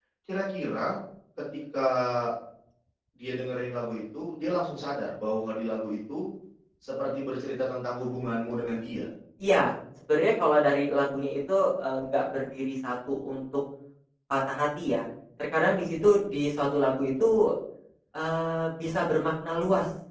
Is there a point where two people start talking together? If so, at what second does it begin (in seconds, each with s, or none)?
none